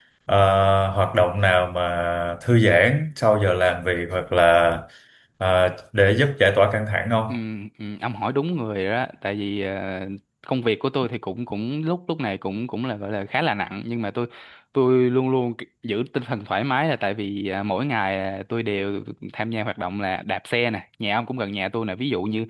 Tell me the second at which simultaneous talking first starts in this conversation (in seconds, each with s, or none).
none